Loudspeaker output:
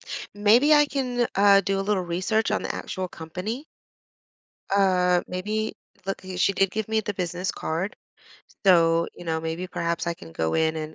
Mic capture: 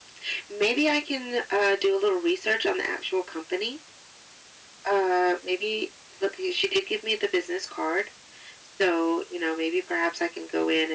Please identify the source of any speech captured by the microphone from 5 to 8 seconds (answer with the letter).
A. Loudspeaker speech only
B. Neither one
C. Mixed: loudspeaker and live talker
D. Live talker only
A